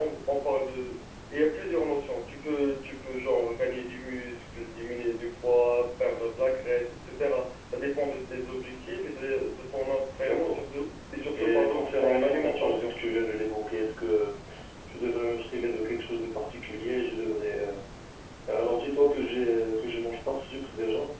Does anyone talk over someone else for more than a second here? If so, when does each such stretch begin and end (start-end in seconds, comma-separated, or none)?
11.3-12.9